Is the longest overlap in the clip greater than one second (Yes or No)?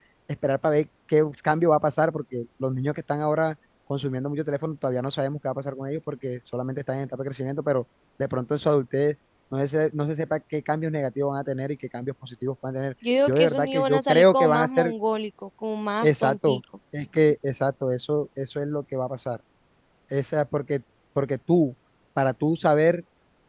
Yes